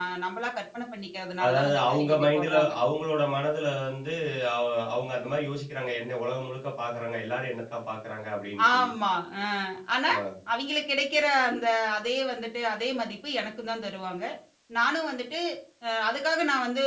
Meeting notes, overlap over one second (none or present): present